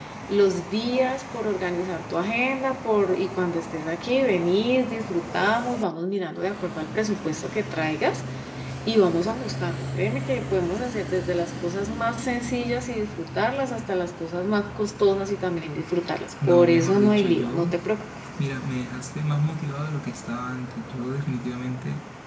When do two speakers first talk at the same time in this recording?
16.4 s

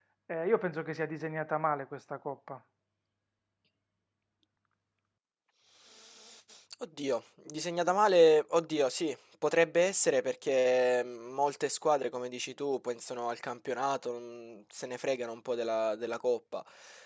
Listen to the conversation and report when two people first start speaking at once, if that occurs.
none

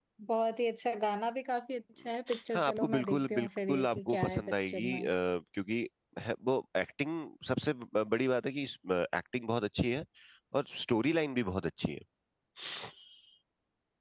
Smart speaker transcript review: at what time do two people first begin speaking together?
2.5 s

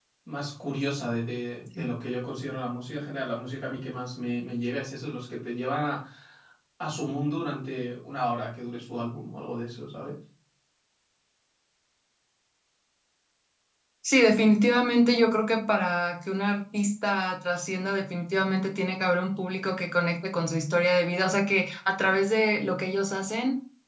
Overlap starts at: none

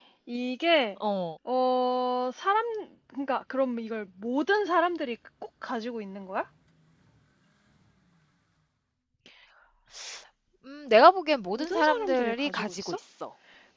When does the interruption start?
11.6 s

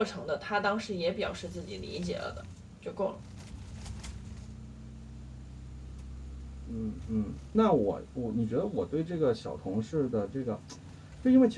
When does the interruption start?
none

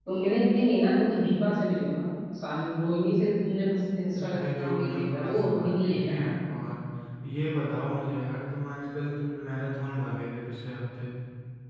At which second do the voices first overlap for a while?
4.1 s

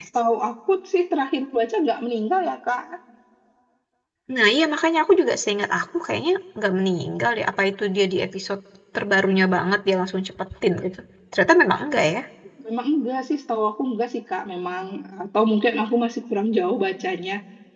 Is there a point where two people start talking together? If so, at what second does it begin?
none

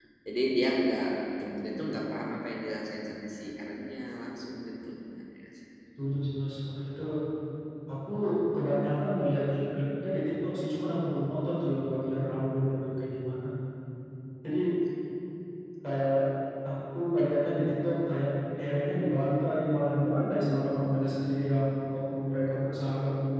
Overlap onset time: none

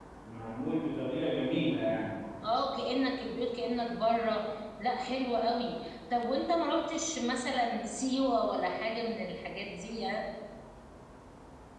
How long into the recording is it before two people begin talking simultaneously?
none

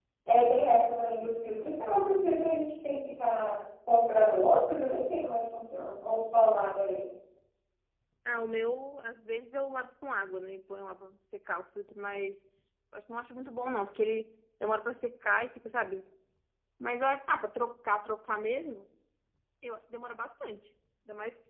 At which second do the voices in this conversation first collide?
none

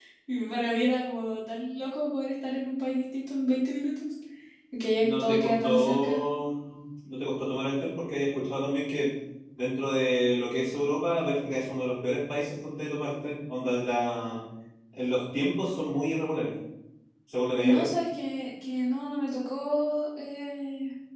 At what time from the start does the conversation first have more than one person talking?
5.0 s

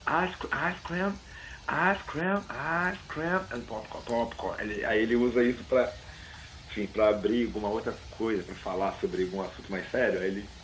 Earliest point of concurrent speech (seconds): none

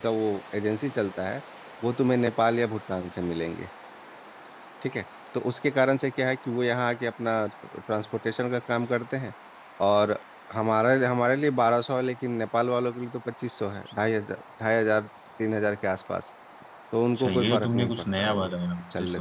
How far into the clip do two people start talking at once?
17.2 s

